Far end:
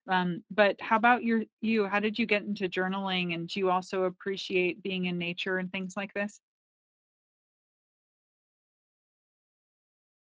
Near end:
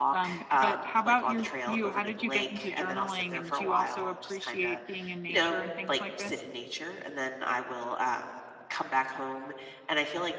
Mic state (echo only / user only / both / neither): both